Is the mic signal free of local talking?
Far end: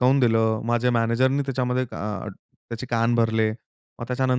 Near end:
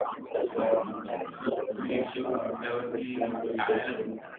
No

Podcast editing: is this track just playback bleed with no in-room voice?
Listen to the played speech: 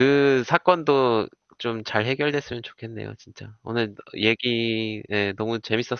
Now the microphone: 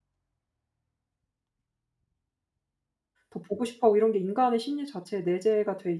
No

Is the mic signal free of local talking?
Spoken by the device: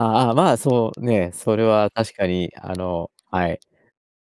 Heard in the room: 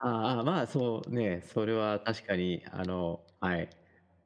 Yes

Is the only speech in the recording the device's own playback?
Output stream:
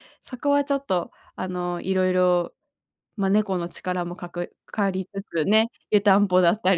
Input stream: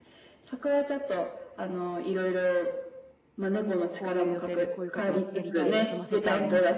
No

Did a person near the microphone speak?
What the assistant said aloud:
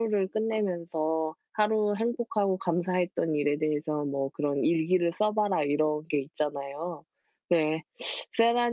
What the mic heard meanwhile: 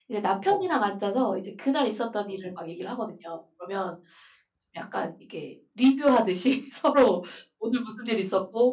Yes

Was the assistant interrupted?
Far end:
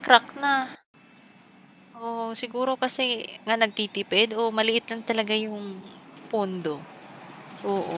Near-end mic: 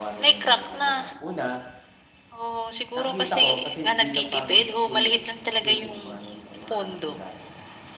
Yes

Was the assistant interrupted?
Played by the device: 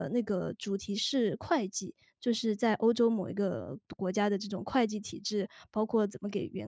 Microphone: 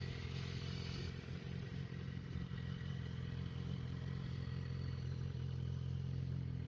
No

